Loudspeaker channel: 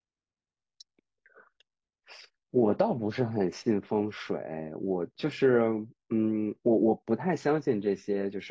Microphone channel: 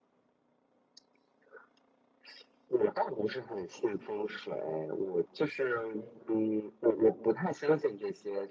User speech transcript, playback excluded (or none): none